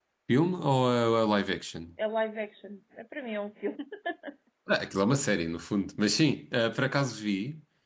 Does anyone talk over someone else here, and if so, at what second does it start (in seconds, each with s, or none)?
none